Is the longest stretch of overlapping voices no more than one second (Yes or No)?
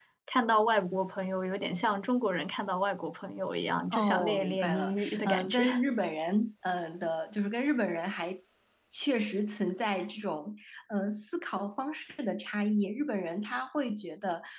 No